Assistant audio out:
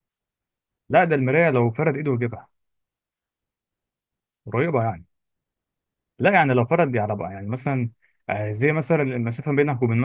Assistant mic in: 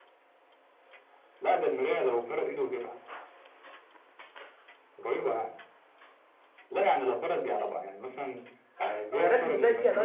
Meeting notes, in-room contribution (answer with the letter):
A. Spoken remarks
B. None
A